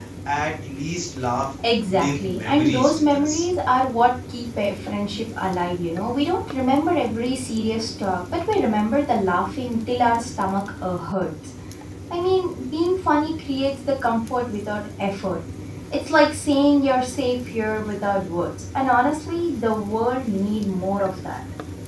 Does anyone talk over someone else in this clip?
Yes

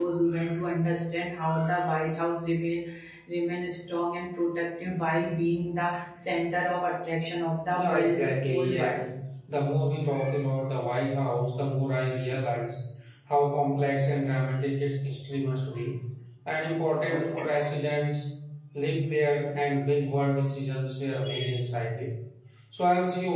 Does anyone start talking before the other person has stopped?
Yes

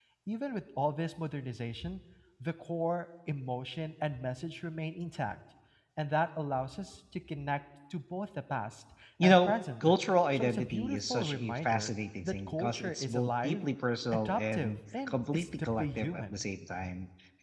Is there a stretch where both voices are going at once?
Yes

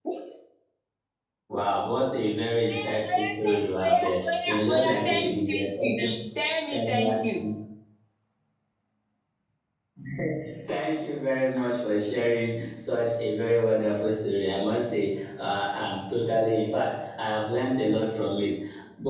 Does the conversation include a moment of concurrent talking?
Yes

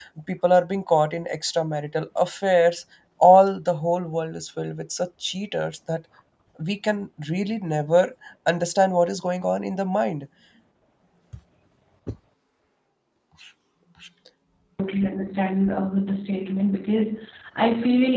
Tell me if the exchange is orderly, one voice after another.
Yes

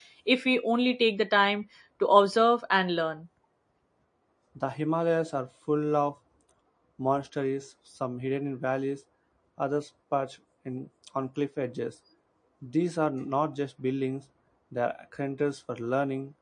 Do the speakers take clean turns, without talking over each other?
Yes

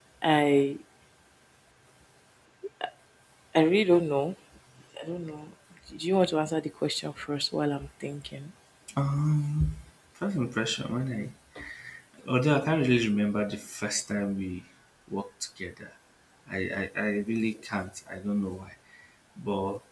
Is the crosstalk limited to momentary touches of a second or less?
Yes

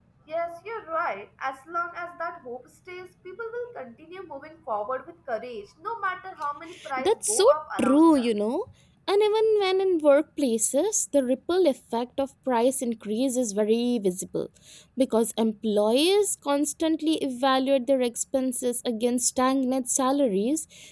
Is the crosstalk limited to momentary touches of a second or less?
Yes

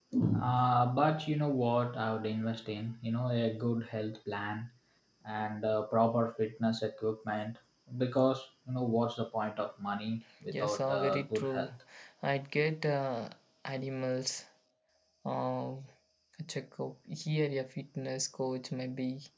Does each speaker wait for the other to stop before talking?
No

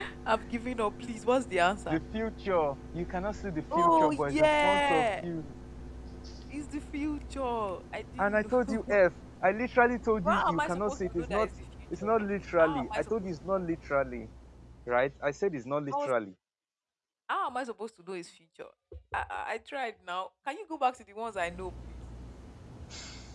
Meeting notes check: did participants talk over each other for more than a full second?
Yes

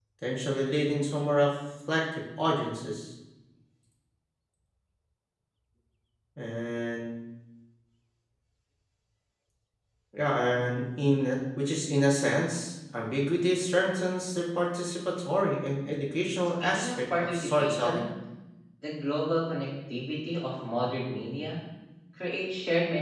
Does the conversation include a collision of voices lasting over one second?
Yes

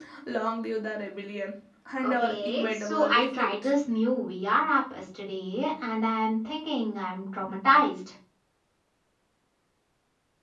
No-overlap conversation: No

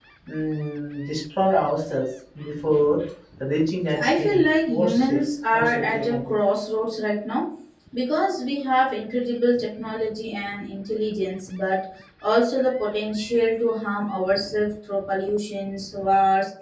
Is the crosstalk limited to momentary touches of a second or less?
No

